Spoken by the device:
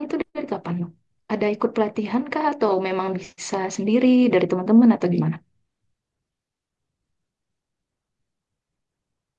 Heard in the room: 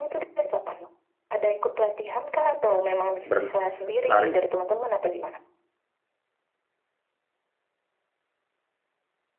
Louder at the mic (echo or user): user